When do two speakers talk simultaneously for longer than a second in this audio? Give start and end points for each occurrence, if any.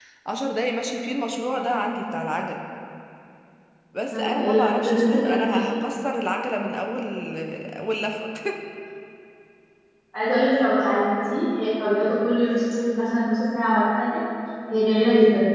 4.1-5.7

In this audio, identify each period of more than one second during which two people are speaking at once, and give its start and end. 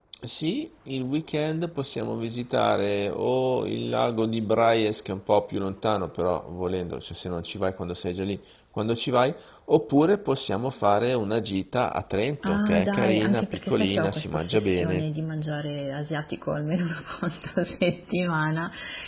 12.5-15.0

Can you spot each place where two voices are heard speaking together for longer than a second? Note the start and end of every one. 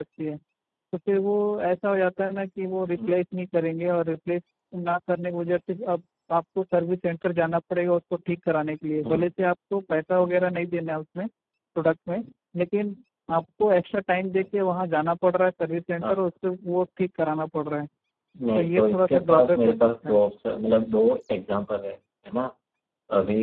18.6-20.2

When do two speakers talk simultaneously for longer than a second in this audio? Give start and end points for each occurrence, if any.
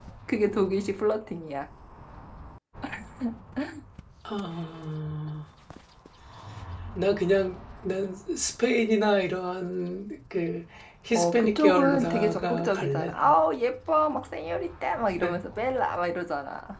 11.1-13.3

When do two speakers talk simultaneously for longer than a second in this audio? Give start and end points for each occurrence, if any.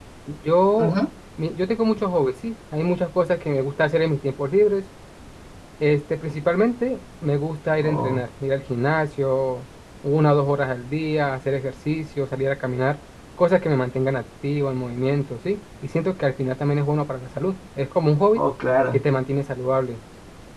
none

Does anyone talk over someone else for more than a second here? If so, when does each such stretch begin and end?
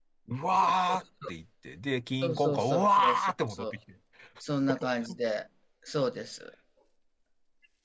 2.2-3.7

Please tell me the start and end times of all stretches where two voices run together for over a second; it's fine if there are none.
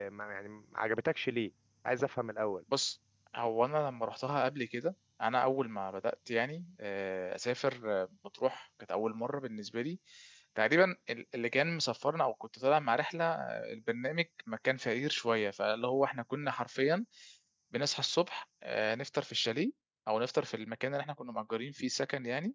none

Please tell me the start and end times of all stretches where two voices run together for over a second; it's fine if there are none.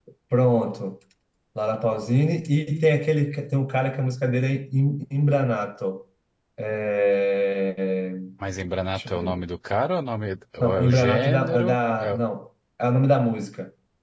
10.6-12.2

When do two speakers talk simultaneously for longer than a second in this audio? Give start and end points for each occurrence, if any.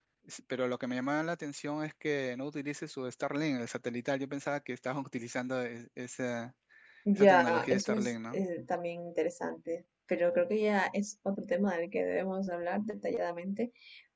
7.2-8.4

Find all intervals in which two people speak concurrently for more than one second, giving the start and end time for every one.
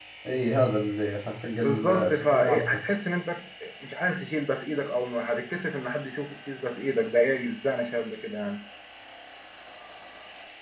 1.6-2.8

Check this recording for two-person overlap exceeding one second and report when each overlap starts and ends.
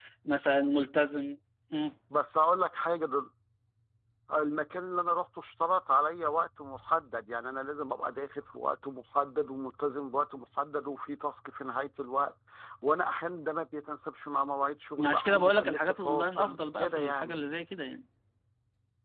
15.1-17.4

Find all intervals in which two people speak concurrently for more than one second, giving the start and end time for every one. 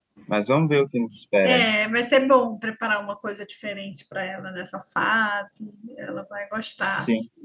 none

